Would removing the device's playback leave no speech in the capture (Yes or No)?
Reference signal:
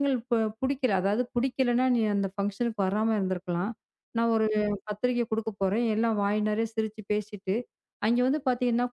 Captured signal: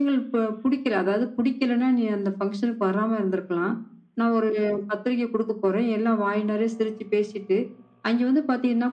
Yes